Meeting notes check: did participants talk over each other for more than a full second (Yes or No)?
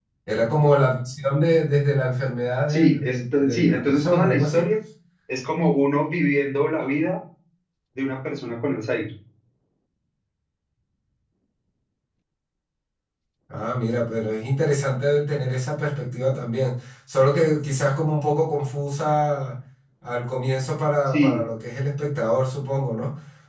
Yes